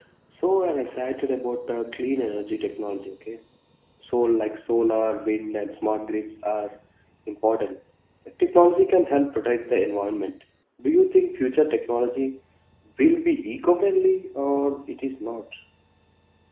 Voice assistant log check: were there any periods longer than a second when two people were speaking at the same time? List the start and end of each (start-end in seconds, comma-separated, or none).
none